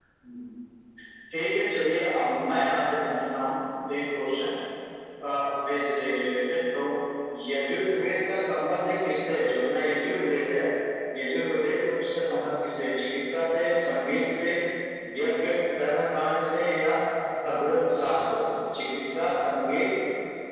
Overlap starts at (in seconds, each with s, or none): none